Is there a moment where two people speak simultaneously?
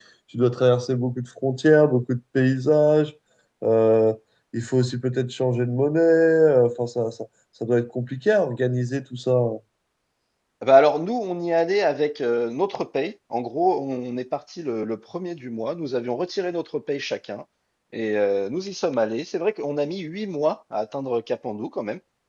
No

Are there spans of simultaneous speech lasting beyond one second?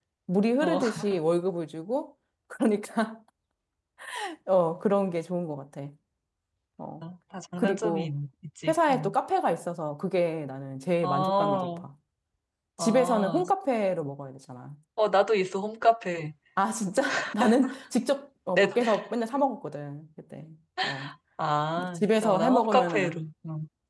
Yes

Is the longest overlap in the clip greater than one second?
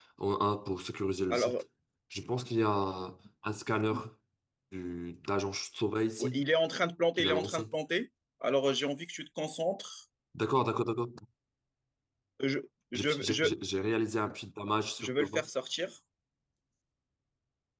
No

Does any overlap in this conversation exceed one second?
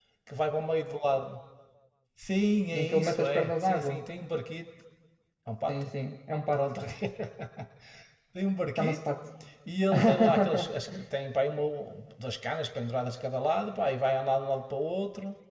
Yes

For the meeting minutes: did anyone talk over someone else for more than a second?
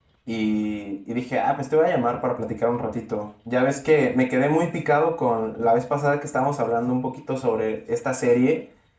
No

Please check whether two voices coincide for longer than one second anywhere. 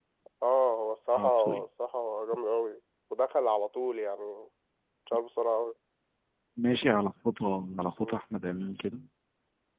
No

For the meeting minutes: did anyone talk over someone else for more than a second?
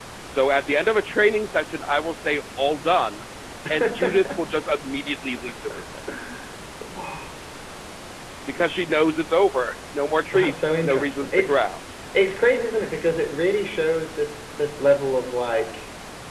Yes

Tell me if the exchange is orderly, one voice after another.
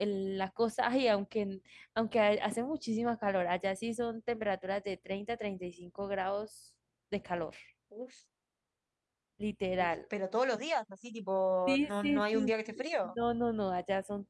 No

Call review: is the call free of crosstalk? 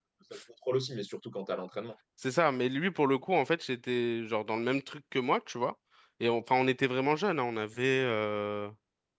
Yes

